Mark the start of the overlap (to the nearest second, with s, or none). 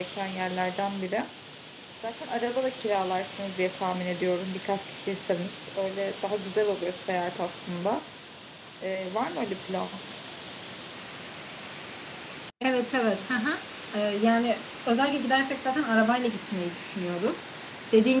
none